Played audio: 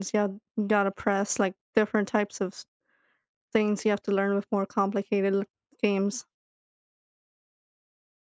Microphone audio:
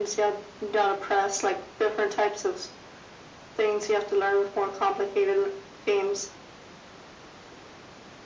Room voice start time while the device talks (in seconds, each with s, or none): none